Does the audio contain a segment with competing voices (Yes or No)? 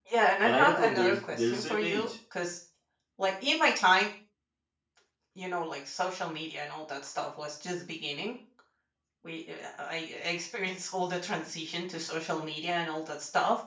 Yes